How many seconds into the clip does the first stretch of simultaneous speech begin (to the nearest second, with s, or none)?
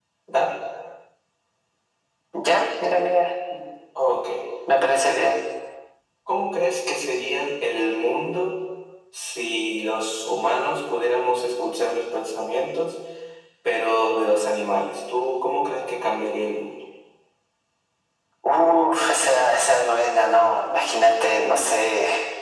none